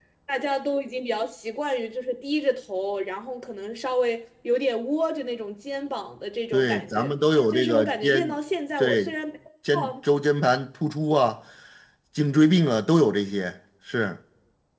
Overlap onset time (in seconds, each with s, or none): 6.5 s